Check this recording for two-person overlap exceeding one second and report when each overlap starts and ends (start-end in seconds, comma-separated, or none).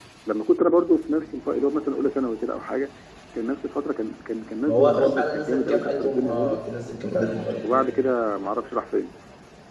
4.7-6.6